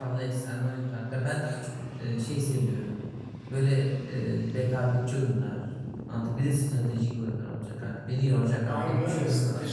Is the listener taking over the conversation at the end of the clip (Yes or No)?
Yes